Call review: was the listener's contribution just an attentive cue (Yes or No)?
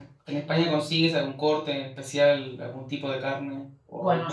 No